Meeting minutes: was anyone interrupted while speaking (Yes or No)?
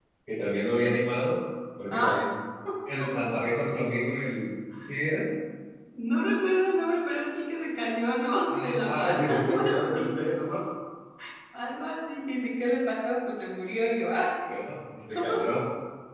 Yes